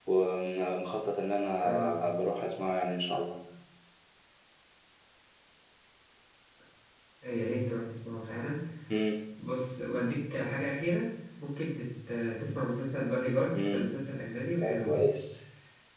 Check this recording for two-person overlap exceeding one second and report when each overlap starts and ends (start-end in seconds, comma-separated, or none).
none